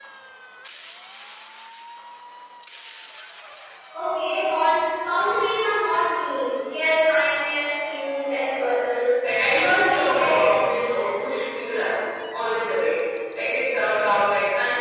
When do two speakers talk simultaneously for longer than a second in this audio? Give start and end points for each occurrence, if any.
9.5-11.2

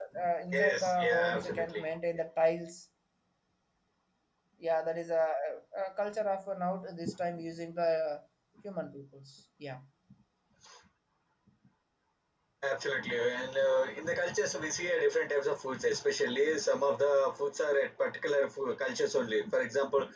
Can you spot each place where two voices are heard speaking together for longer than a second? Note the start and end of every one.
0.5-1.8

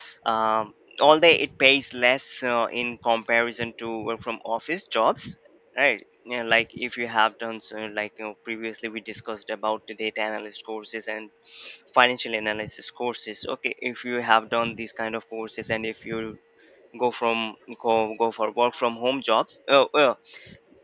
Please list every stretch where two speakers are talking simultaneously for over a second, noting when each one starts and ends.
none

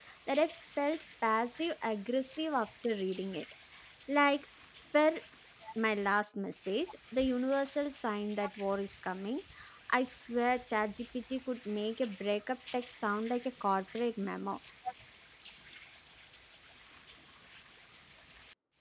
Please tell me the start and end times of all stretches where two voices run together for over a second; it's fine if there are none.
none

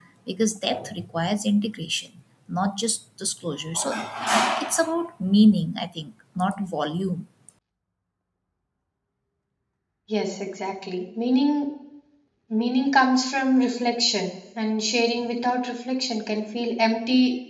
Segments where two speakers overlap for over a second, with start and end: none

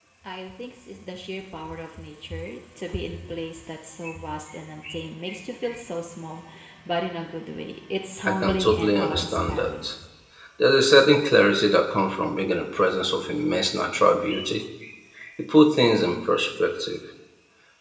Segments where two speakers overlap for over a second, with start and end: 8.2-9.8

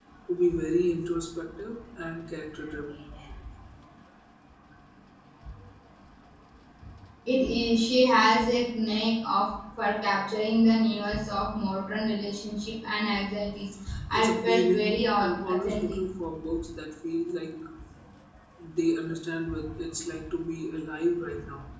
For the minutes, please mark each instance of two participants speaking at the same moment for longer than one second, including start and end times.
14.1-16.0

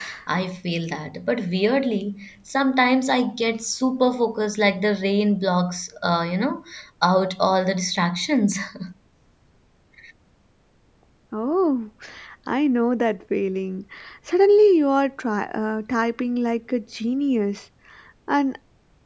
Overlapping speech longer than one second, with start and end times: none

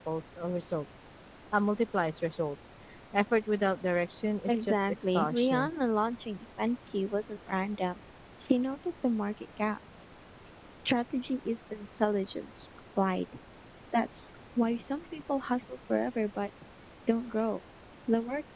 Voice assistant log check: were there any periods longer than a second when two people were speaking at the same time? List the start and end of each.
4.5-5.7

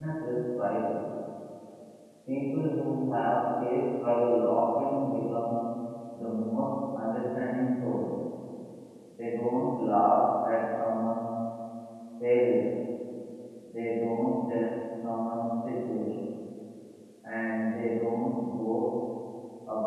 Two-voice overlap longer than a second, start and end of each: none

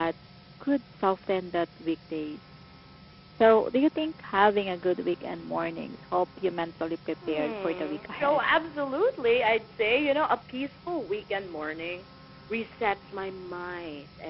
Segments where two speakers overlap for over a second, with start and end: 7.3-8.5

